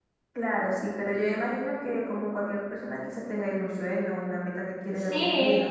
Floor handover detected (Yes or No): Yes